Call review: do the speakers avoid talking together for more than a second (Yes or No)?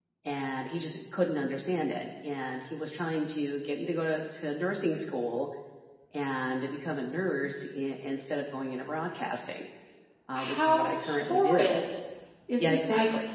No